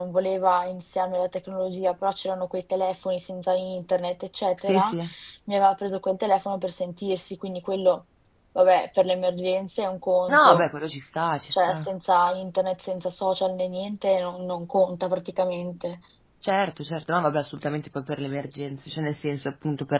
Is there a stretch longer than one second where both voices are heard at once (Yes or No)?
No